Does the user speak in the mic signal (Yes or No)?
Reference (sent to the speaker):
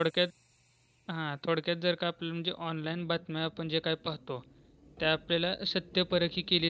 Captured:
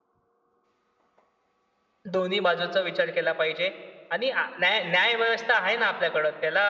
Yes